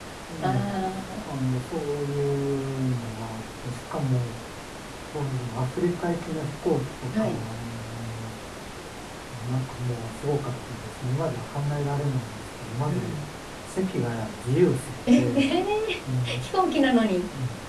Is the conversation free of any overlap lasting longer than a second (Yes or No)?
Yes